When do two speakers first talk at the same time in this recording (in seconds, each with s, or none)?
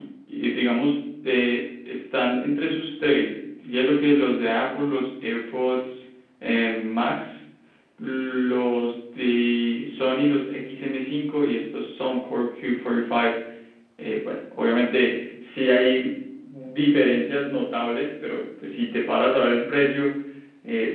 none